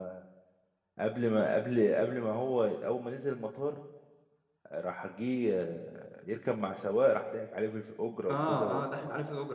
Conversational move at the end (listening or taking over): taking over